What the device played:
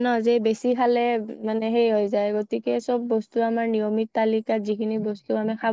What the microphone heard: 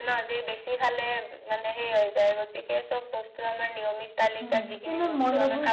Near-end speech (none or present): present